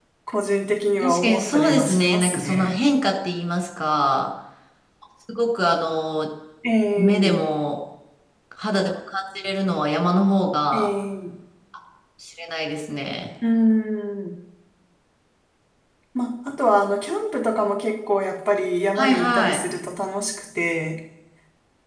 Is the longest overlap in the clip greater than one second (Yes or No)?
Yes